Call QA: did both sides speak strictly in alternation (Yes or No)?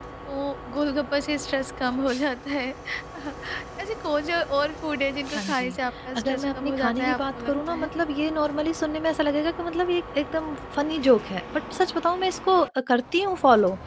No